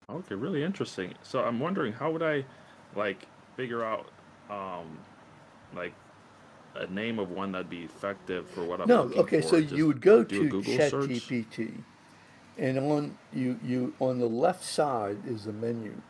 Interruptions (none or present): present